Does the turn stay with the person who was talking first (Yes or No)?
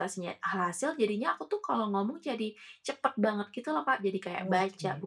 Yes